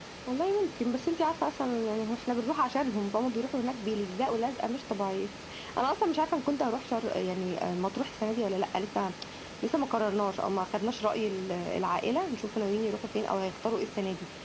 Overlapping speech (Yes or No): No